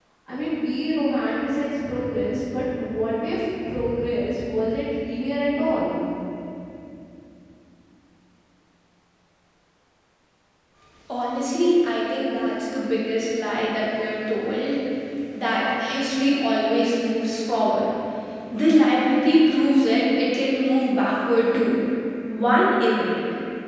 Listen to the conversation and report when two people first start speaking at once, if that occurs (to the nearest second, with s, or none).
none